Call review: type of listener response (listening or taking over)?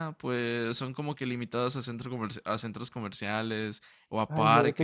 taking over